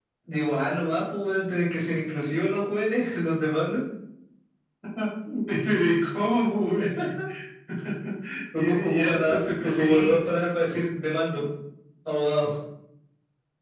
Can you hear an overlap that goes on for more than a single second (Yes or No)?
Yes